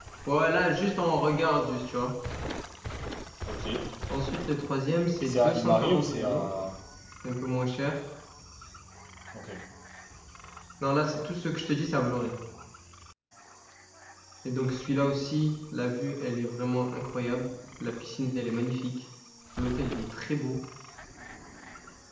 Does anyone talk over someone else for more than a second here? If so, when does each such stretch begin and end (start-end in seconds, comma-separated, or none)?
5.2-6.4